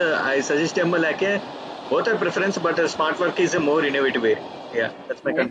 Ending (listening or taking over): taking over